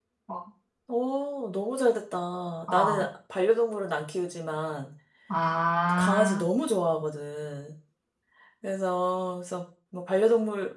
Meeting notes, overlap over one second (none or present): none